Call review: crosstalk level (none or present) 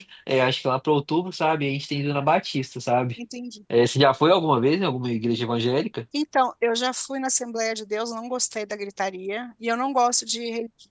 none